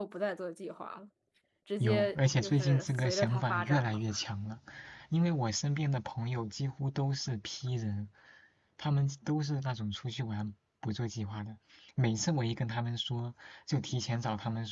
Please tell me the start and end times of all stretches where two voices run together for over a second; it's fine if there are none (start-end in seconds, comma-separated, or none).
1.8-4.0